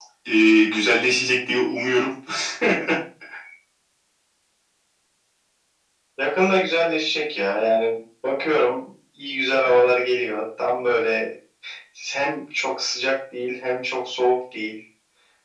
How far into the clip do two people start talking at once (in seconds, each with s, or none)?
none